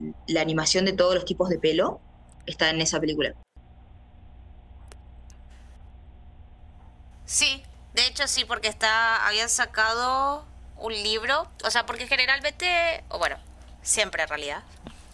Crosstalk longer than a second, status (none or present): none